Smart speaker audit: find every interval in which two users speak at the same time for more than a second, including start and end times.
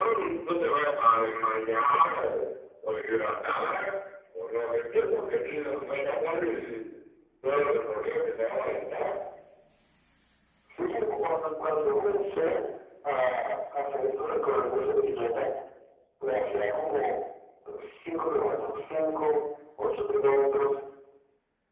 none

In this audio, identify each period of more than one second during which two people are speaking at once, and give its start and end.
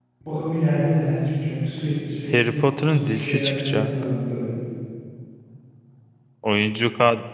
2.3-3.9

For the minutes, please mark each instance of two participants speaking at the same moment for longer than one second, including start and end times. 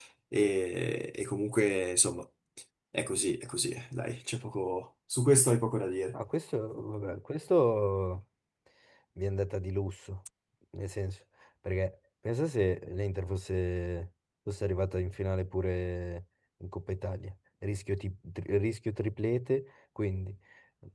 none

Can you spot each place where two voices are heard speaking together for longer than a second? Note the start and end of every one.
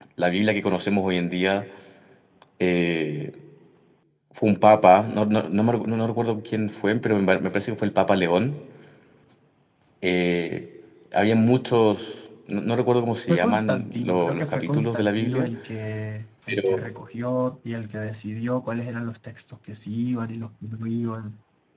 13.3-15.5

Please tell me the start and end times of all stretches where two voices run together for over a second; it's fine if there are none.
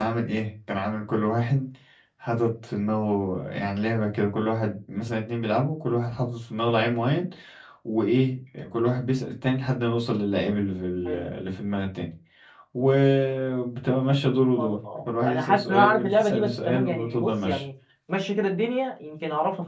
15.3-17.6

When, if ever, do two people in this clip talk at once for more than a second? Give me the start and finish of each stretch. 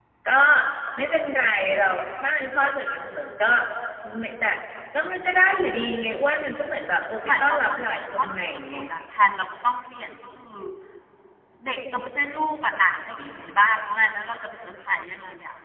7.4-8.8

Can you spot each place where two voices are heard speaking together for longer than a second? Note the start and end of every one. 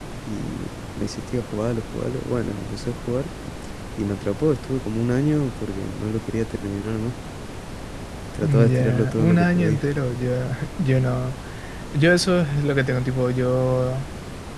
8.4-9.8

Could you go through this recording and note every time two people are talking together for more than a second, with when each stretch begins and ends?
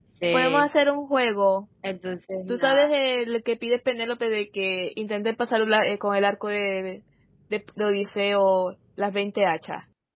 none

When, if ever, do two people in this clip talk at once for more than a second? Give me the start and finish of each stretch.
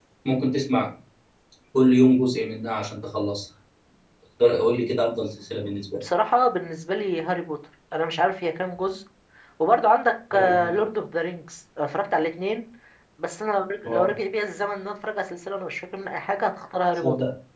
none

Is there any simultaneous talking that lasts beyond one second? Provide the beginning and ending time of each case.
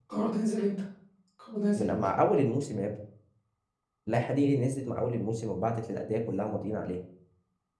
none

